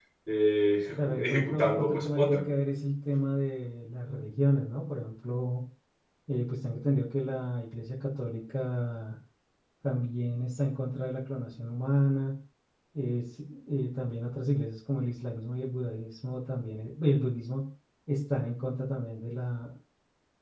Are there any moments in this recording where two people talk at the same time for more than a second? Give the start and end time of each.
1.0-2.4

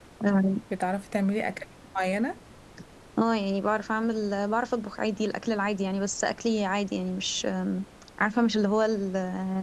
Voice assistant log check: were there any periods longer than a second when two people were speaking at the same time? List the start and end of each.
none

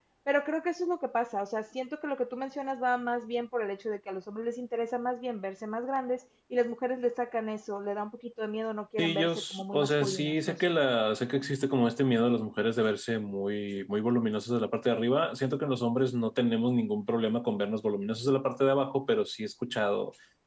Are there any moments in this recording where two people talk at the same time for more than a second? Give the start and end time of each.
9.0-10.8

